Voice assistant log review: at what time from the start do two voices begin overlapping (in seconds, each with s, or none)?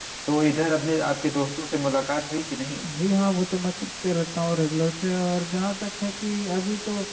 none